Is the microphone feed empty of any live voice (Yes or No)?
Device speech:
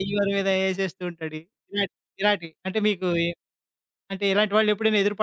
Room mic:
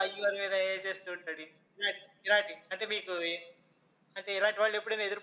Yes